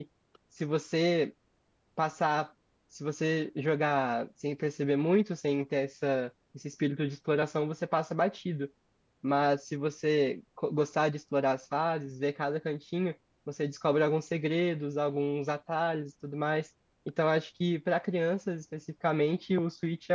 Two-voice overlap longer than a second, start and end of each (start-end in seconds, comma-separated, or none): none